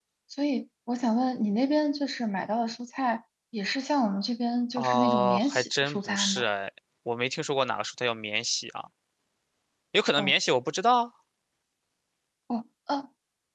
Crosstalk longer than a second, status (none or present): present